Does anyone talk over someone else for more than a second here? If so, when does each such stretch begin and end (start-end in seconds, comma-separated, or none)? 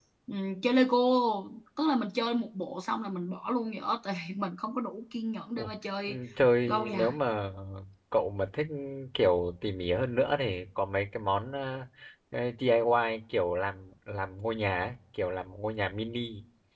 none